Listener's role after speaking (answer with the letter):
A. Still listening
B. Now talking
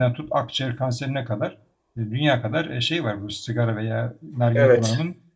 A